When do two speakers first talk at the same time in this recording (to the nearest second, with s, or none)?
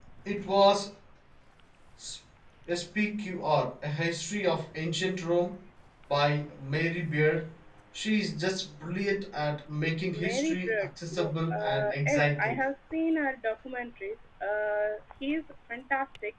10 s